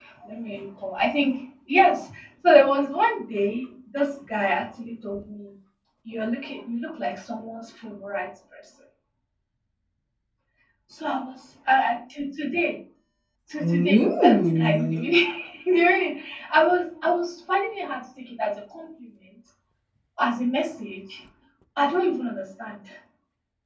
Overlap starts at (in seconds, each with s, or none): 13.6 s